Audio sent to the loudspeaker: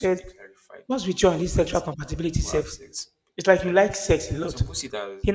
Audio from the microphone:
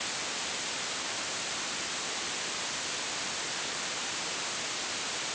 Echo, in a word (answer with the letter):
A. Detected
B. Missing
B